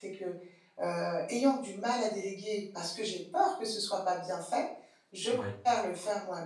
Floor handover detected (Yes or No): No